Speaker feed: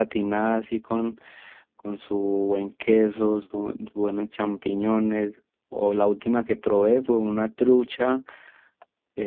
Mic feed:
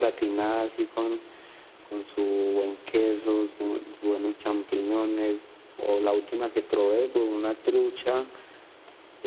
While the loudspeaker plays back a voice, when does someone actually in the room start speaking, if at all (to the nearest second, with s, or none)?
none